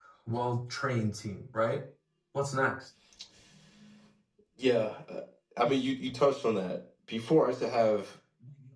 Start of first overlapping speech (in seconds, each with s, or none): none